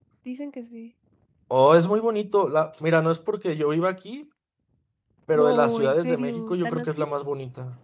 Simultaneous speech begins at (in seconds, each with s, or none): 5.3 s